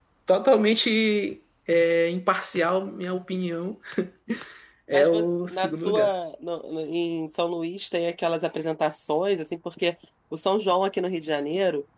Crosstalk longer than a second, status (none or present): present